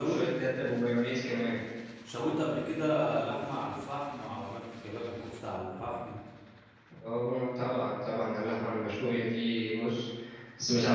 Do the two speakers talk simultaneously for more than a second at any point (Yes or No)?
No